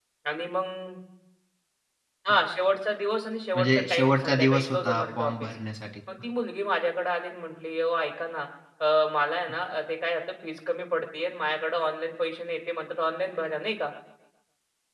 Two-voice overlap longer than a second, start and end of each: 3.5-5.5

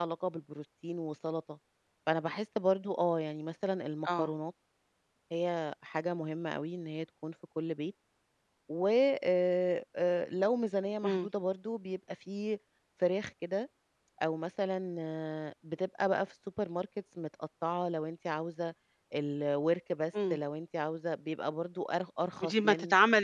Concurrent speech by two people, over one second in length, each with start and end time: none

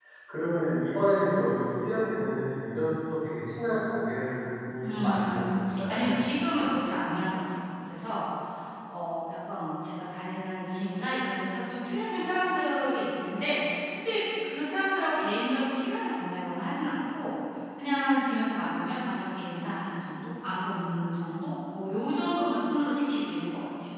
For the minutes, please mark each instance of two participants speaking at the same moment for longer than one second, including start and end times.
4.8-6.0

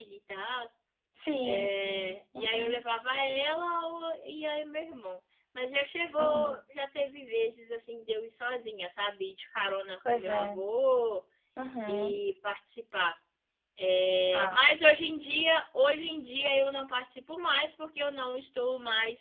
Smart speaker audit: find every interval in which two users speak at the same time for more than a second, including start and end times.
1.4-2.8

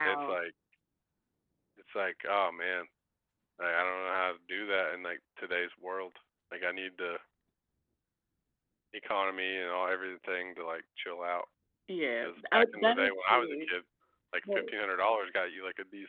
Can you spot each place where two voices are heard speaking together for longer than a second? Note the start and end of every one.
12.2-13.7

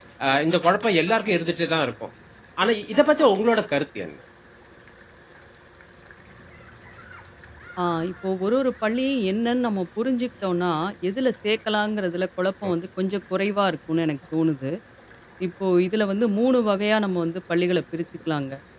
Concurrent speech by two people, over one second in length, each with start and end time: none

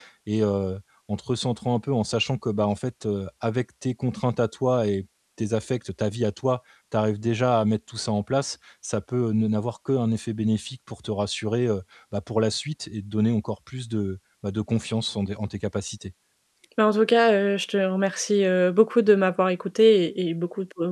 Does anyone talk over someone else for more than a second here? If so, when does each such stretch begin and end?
none

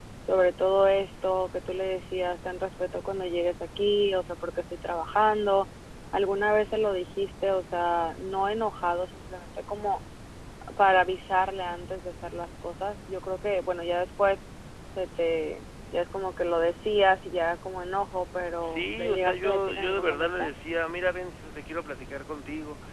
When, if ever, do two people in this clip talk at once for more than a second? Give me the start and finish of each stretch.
18.6-20.5

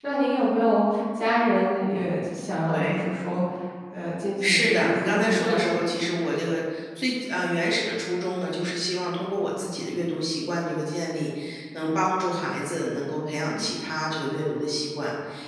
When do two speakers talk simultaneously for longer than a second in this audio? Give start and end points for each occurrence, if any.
4.4-5.8

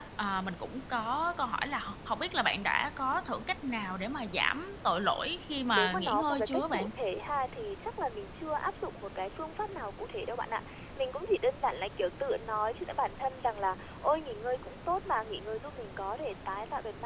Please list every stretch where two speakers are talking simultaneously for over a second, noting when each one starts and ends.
5.5-6.9

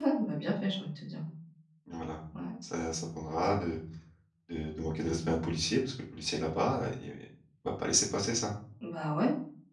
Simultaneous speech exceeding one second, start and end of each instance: none

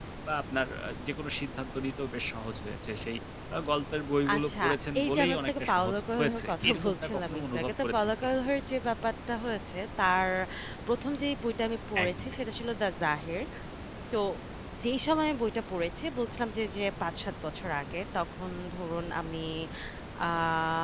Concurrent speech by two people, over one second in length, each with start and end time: 5.0-8.3

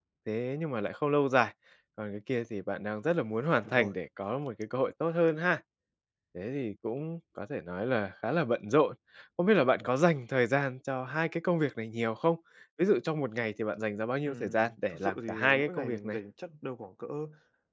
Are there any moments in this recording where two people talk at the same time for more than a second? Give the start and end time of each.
14.2-16.2

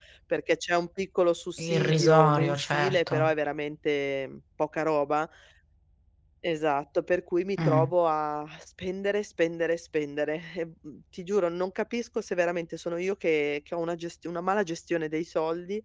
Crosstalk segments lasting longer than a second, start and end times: 1.6-3.3

